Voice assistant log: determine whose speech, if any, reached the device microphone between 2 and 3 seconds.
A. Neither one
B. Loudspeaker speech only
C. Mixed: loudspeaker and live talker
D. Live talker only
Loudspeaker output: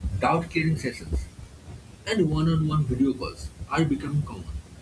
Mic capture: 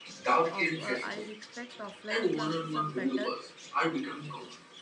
C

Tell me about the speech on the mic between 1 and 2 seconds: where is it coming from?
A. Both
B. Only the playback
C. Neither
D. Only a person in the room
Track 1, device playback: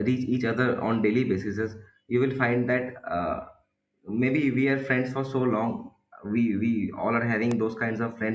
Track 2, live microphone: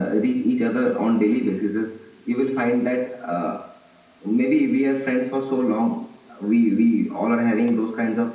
B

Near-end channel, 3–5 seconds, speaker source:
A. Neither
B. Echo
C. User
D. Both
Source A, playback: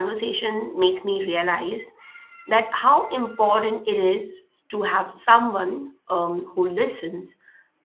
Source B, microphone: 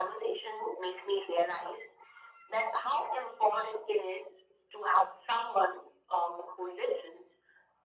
B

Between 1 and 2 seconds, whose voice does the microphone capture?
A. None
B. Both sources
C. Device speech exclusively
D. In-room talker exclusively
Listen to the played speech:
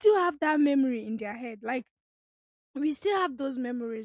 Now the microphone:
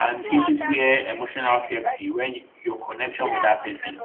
B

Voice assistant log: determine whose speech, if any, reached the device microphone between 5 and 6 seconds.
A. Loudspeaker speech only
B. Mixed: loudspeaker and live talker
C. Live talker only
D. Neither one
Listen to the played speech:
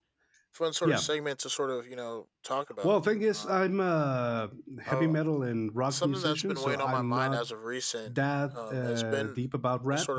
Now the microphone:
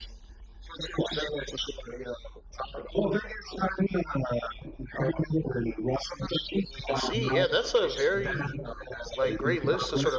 A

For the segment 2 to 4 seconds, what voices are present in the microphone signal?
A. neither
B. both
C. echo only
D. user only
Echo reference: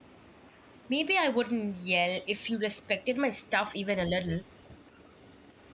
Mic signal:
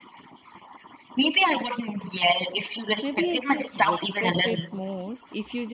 B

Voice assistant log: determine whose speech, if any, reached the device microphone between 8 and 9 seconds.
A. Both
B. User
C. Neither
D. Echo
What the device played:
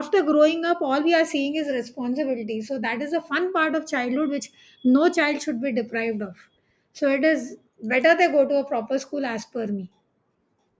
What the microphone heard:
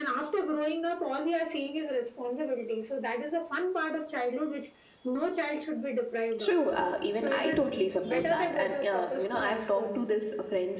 A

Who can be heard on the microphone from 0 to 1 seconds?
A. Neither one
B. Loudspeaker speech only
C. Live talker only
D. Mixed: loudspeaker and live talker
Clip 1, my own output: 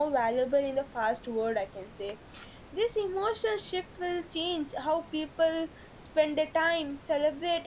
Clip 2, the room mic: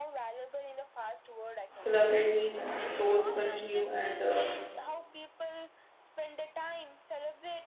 B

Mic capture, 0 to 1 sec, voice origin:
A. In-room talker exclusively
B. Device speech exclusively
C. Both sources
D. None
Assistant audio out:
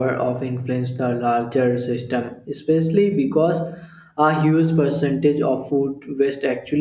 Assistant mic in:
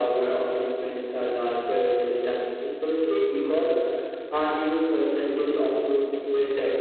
B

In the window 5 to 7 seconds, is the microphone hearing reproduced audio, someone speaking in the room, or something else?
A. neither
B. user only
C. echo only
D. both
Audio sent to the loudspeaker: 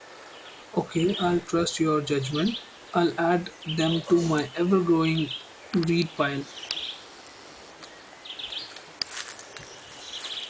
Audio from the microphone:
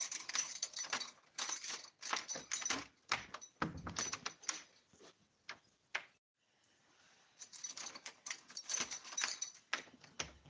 A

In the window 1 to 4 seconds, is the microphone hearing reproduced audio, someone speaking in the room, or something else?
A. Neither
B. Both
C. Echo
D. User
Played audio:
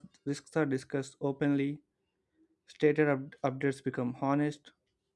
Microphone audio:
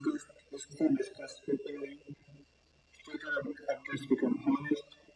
C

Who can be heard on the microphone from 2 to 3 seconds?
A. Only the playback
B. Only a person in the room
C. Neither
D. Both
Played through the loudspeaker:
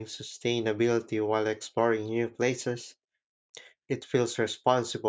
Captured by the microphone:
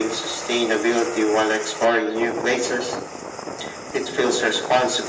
A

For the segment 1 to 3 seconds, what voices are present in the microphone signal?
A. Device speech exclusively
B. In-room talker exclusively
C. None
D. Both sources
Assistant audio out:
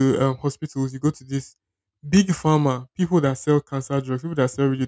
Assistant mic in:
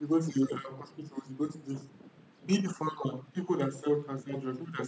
A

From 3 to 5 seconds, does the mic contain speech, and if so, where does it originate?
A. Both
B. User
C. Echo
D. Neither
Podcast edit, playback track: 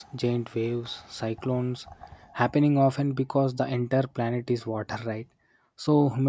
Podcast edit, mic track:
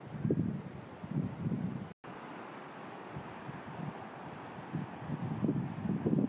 D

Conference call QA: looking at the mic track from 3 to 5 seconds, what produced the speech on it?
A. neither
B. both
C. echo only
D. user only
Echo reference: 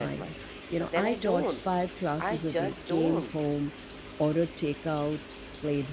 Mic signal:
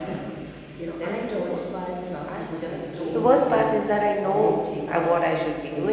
B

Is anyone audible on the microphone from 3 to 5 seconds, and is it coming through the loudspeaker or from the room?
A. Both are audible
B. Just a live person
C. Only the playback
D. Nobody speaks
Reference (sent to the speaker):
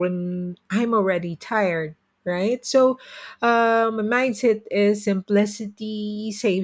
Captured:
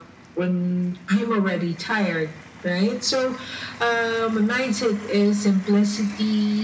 C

